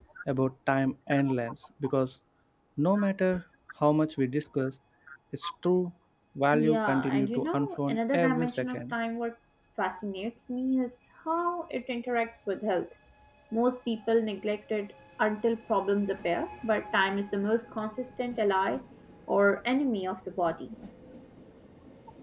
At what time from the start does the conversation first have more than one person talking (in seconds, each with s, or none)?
6.5 s